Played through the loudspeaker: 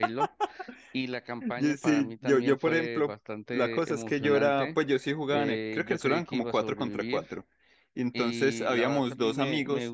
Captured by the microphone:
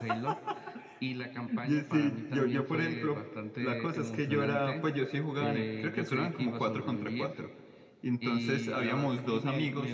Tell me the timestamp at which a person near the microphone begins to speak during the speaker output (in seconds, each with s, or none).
none